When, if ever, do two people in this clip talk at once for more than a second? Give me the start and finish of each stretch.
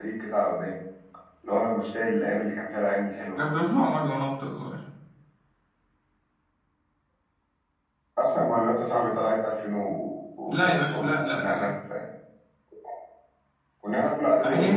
10.5-11.7

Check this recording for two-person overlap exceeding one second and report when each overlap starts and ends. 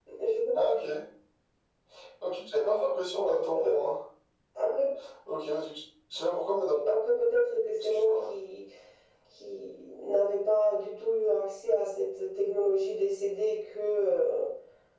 none

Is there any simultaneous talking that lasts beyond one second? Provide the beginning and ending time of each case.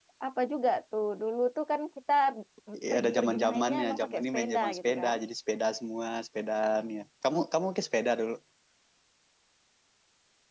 2.9-5.1

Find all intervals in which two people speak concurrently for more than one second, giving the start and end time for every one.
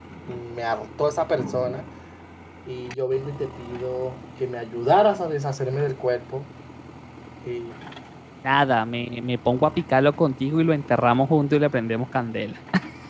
none

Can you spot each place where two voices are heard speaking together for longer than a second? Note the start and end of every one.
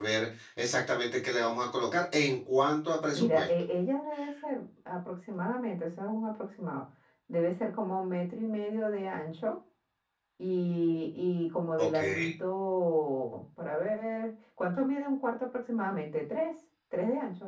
none

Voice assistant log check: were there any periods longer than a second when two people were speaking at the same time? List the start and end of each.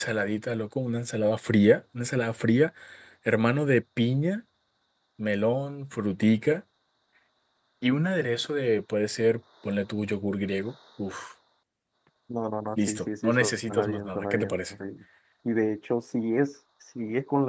12.9-14.7

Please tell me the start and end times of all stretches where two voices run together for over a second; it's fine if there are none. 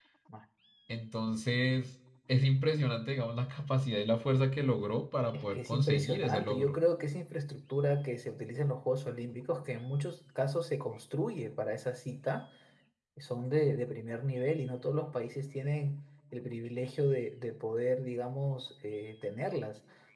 5.3-6.8

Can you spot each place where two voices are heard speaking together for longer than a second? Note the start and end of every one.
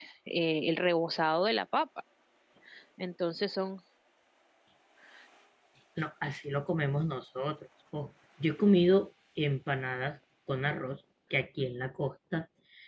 none

